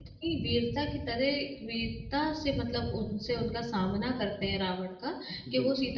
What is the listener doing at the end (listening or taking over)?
listening